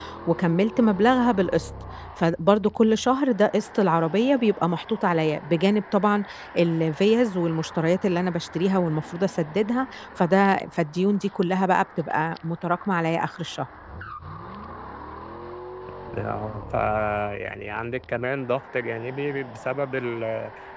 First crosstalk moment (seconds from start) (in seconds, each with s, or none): none